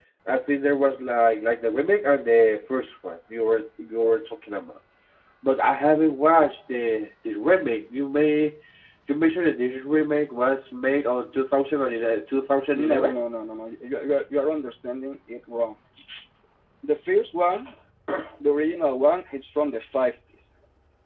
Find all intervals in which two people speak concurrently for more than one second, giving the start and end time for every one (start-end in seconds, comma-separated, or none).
none